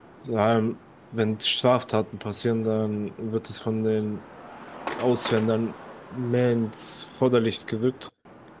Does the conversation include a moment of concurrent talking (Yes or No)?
No